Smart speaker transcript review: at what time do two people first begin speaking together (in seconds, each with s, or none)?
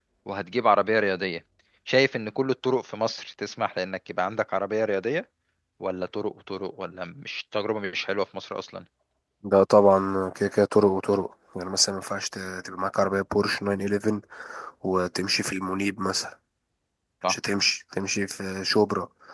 none